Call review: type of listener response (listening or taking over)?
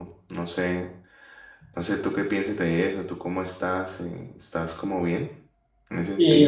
taking over